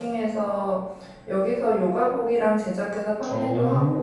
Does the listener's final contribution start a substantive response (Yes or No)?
No